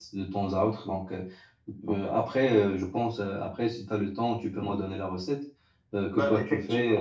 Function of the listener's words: listening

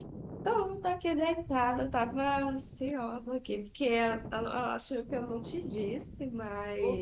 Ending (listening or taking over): taking over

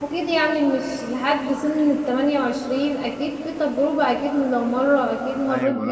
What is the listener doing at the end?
taking over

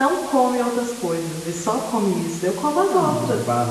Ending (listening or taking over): taking over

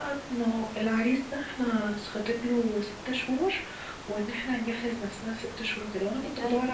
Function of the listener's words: listening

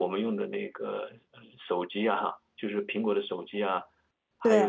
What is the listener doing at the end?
listening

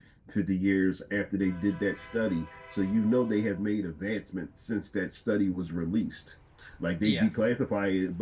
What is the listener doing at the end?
listening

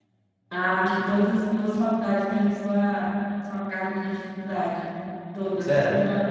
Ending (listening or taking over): taking over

